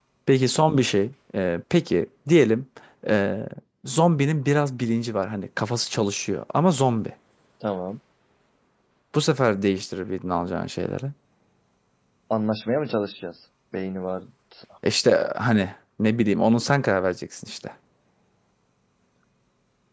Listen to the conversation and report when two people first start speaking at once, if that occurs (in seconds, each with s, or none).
none